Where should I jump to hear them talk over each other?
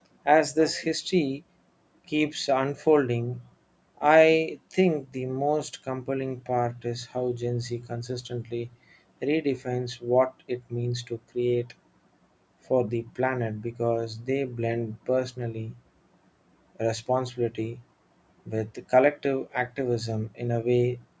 none

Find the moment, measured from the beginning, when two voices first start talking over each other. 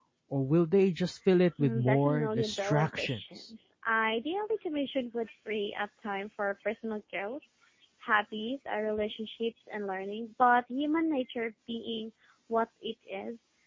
2 s

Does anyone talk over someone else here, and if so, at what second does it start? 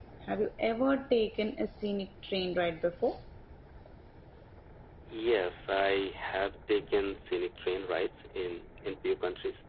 none

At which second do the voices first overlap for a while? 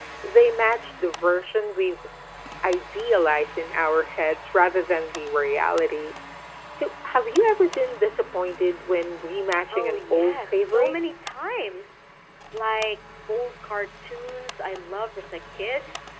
10 s

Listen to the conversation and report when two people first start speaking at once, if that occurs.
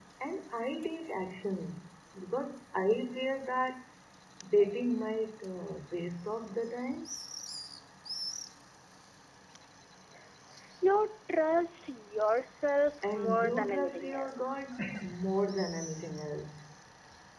13 s

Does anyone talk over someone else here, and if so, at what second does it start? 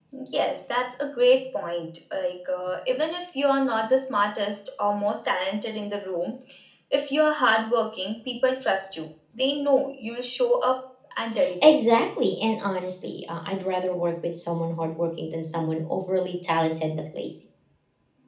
none

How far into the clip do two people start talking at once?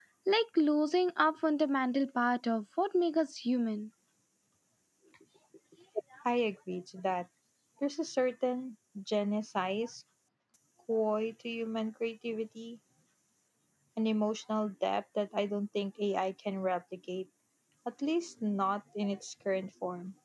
none

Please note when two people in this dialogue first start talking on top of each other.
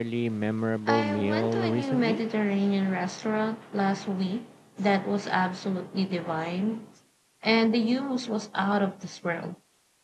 1 s

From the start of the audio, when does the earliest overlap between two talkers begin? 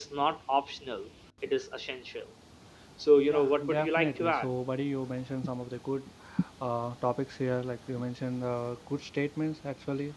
3 s

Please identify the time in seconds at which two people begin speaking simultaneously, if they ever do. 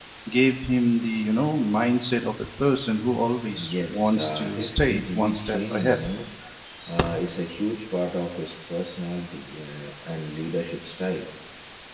4 s

